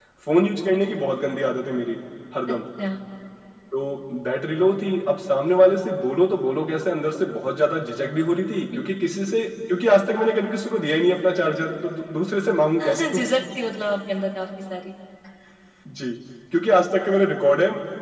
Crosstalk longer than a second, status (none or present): none